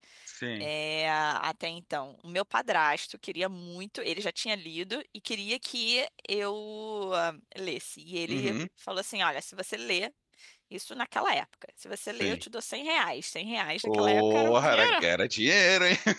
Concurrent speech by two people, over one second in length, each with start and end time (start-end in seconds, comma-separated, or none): 13.8-15.0